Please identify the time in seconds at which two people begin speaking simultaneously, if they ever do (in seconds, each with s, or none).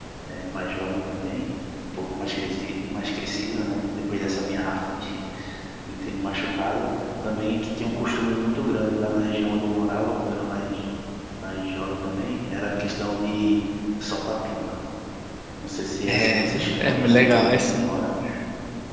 16.1 s